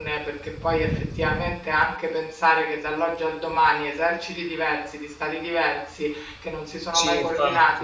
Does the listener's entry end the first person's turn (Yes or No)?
No